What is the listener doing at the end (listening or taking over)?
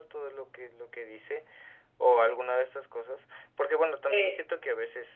listening